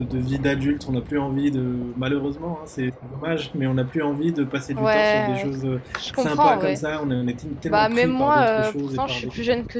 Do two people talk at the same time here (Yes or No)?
Yes